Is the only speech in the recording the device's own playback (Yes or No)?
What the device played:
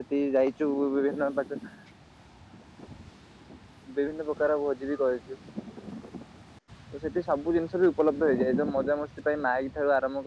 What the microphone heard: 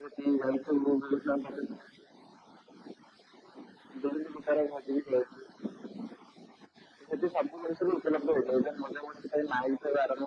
Yes